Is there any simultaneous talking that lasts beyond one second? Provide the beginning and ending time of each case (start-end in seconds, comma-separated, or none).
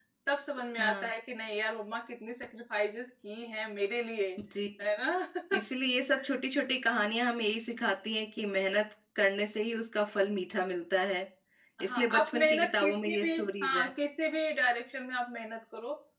11.8-13.2